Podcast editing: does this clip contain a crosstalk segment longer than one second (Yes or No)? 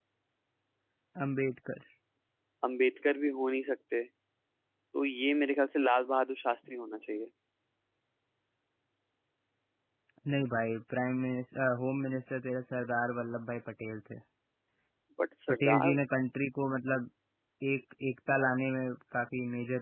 No